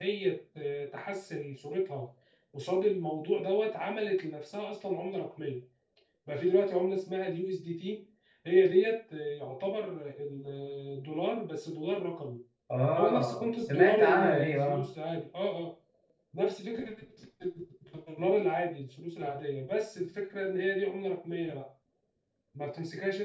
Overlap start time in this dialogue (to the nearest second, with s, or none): 13 s